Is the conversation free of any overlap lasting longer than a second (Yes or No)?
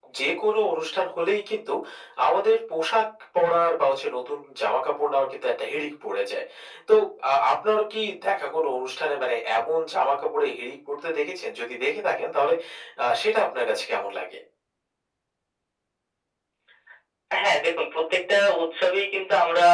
Yes